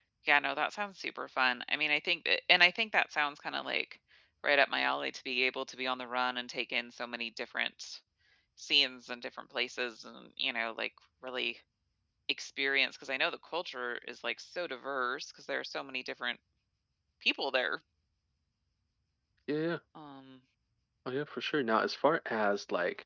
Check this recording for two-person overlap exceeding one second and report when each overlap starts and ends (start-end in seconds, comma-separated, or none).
none